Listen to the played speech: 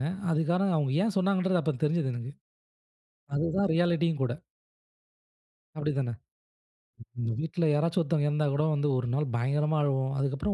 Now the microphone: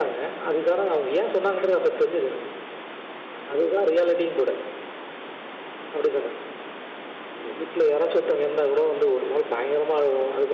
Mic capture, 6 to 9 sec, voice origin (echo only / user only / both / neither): echo only